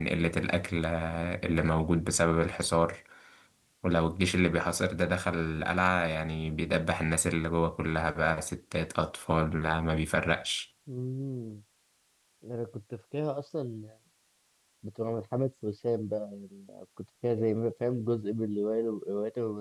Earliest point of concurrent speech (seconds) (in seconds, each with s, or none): none